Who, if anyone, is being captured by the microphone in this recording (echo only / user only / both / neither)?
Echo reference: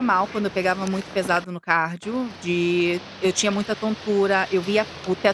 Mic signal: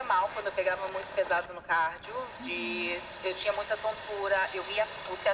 both